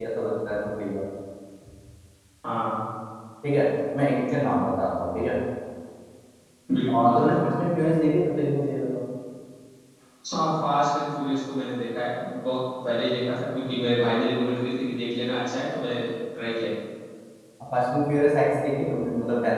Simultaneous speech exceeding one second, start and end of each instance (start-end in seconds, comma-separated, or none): none